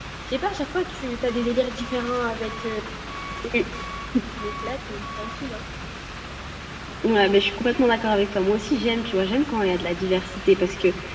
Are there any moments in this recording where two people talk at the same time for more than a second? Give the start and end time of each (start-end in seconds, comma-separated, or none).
none